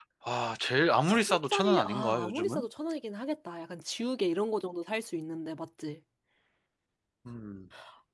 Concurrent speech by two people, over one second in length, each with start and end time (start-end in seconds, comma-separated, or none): 1.1-2.6